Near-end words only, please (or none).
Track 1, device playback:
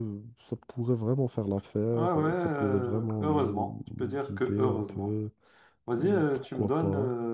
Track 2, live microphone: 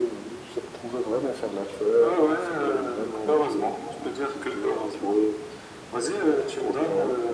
none